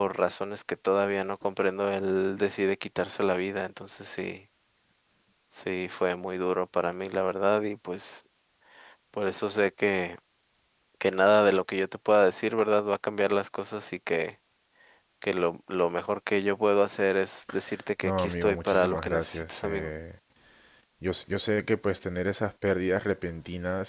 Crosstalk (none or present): present